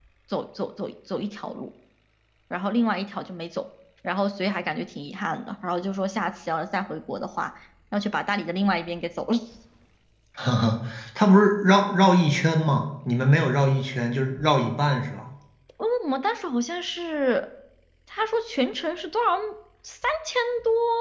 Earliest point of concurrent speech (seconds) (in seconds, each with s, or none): none